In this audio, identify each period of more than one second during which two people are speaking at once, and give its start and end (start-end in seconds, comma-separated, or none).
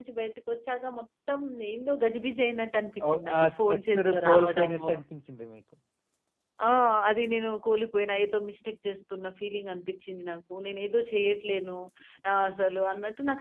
3.1-4.9